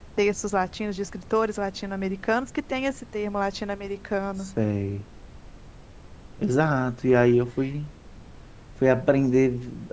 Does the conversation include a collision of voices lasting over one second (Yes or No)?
No